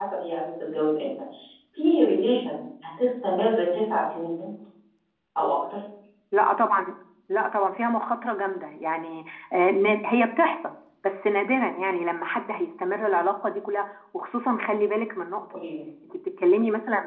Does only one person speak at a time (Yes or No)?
Yes